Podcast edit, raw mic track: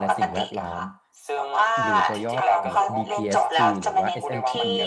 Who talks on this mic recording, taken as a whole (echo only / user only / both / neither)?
both